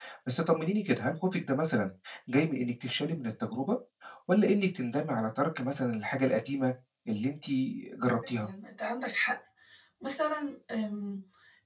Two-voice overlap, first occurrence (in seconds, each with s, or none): none